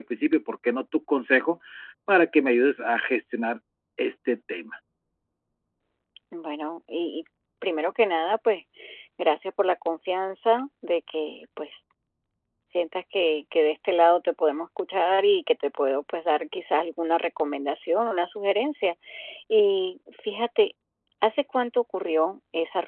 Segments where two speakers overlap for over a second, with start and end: none

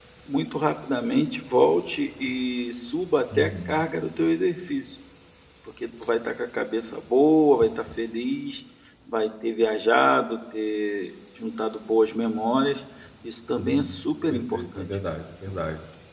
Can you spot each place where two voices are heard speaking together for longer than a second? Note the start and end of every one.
13.6-14.9

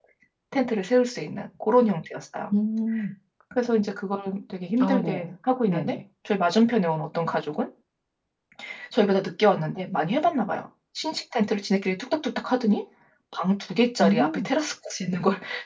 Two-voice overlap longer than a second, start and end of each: none

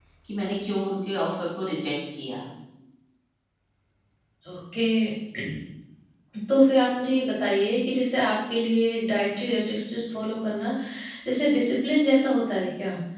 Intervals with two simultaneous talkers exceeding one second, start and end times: none

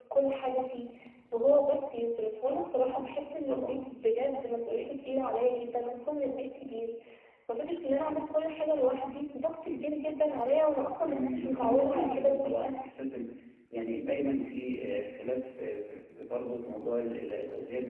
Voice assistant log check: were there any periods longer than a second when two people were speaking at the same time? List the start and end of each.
11.1-12.8

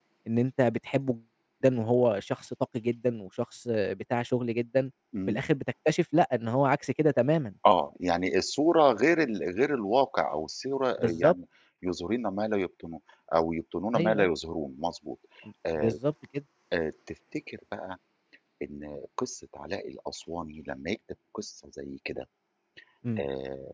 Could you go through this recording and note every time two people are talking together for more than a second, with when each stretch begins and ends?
none

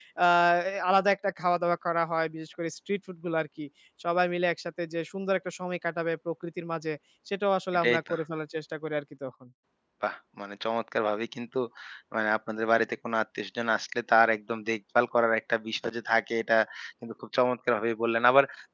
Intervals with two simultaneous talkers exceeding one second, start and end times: none

